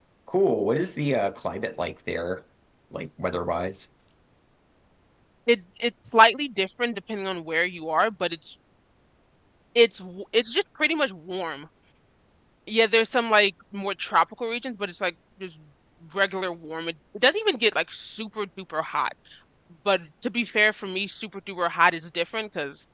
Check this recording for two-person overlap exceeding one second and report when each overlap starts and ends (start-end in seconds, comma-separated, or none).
none